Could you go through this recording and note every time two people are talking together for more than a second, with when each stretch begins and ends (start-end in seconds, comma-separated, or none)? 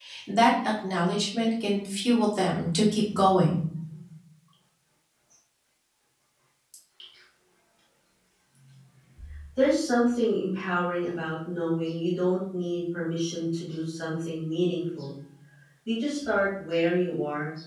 none